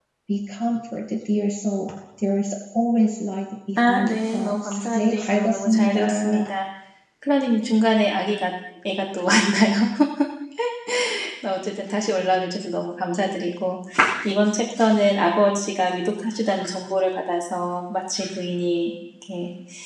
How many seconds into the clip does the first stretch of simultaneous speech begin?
3.8 s

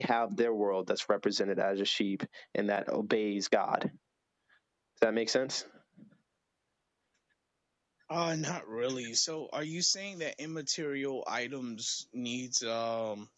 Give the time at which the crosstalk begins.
none

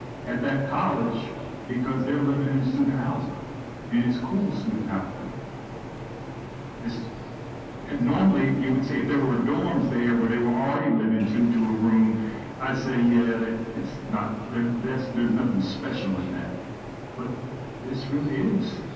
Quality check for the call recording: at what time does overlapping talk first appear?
none

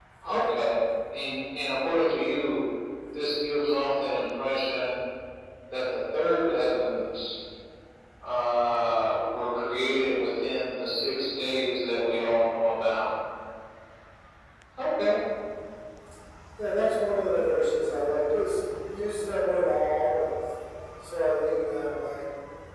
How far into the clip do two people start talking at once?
none

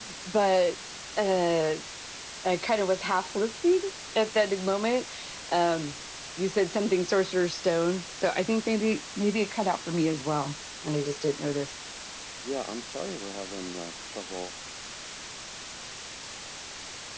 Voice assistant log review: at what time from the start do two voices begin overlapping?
none

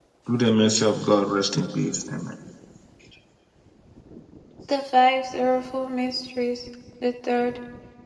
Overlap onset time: none

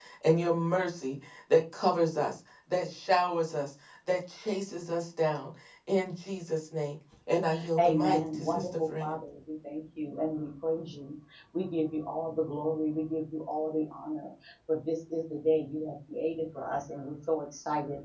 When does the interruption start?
7.8 s

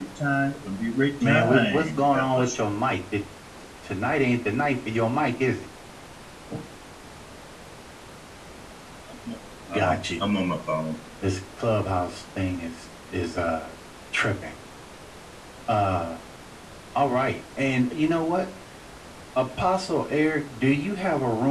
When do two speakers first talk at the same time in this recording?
1.2 s

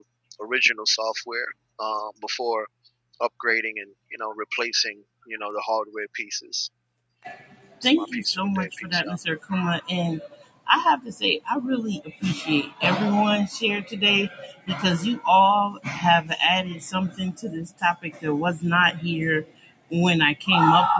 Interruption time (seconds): 7.8 s

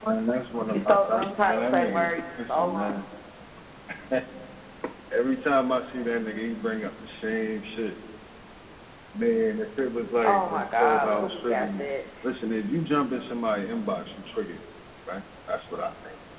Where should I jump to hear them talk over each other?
0.7 s

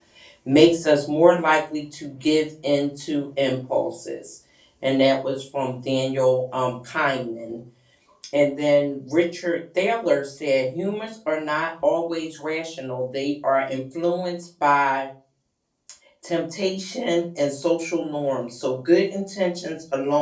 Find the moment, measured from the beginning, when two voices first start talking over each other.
none

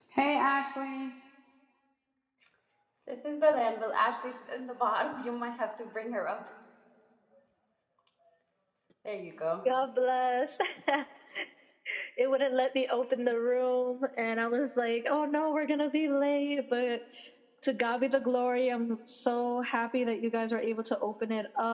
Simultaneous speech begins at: none

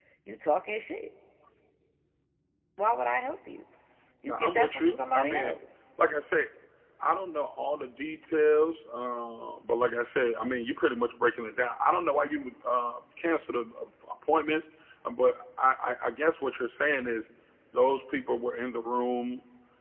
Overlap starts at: 4.2 s

